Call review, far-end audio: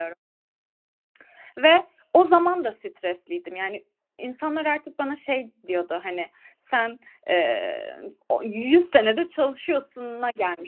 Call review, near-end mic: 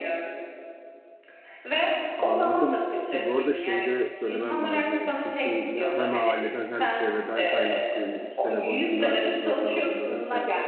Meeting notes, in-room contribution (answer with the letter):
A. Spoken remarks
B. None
A